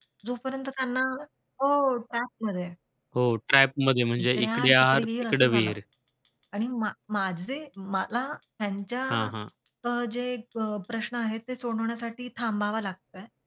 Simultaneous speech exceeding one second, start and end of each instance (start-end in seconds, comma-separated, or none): 4.2-5.8